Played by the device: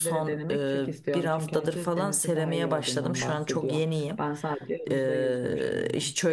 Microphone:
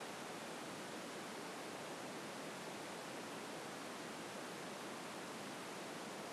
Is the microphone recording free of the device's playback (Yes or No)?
Yes